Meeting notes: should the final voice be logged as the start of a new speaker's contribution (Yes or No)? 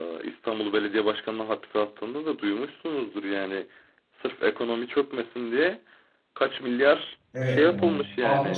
Yes